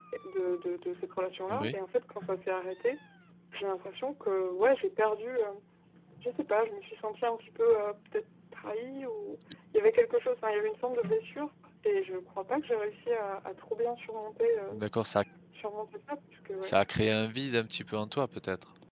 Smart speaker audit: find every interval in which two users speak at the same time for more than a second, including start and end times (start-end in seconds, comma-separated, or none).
none